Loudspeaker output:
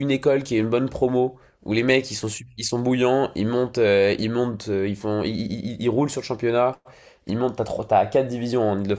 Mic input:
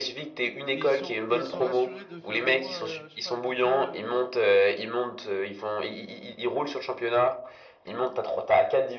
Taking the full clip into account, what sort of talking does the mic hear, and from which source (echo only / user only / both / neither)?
both